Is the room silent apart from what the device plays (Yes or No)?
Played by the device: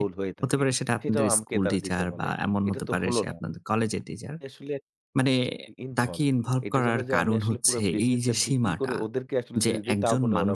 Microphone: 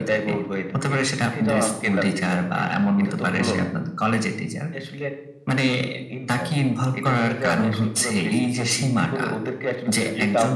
No